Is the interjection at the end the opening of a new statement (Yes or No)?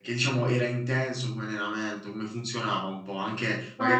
Yes